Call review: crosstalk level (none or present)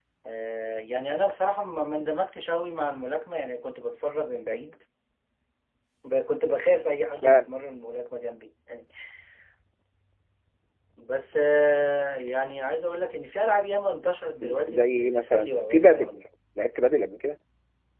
present